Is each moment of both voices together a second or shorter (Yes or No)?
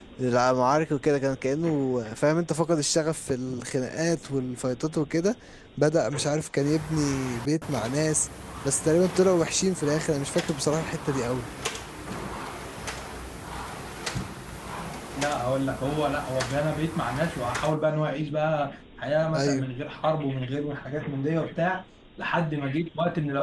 Yes